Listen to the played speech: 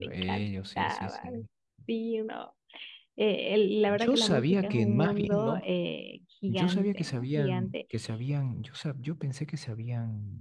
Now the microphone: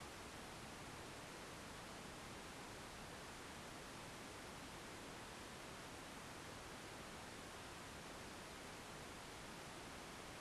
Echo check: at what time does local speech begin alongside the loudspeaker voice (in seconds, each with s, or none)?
none